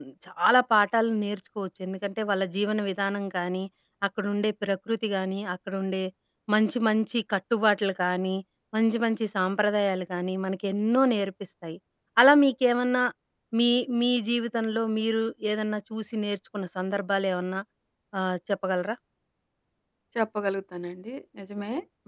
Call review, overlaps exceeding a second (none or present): none